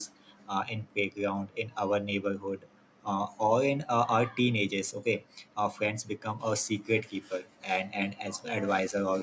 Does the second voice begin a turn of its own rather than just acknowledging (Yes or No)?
No